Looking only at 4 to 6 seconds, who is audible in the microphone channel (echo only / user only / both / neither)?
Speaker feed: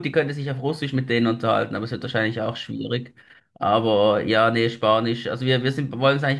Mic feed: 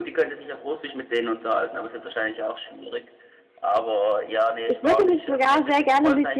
both